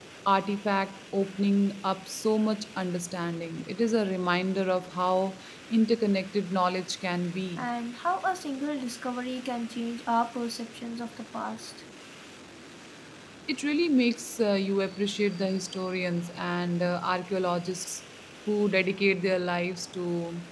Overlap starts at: none

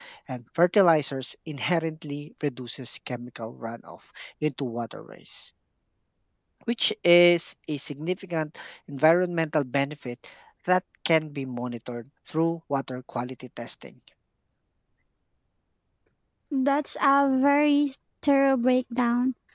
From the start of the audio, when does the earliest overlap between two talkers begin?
none

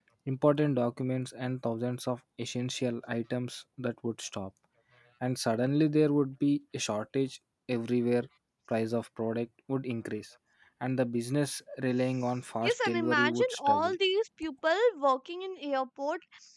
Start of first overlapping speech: 12.6 s

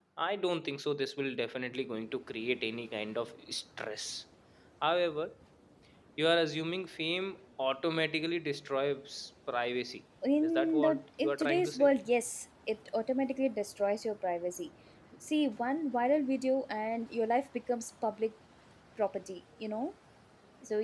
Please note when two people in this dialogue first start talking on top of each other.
10.4 s

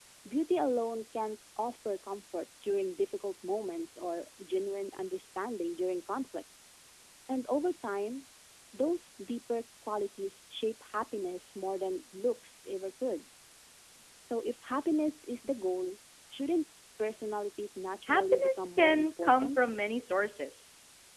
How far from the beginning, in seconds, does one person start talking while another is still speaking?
18.1 s

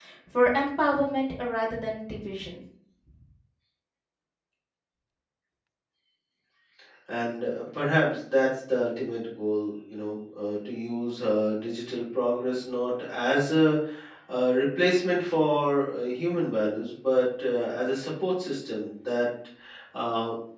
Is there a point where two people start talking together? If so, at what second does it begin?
none

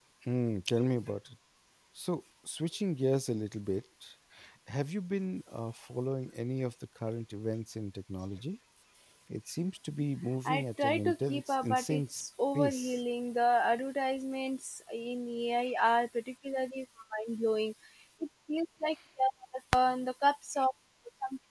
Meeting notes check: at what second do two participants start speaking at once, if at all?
10.4 s

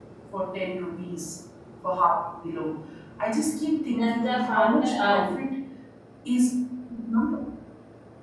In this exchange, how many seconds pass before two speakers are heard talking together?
3.8 s

